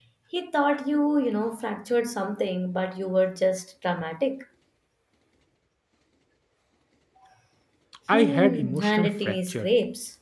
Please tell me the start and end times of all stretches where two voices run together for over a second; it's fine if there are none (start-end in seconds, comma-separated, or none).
8.1-9.7